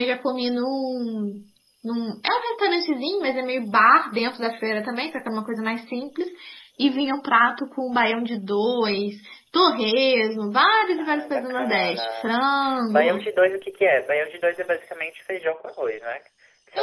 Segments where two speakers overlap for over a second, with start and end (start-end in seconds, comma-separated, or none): 11.0-12.4